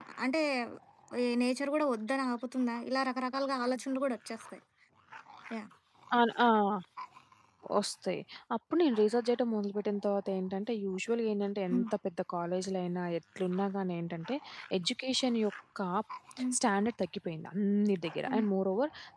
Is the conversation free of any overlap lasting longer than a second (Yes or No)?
Yes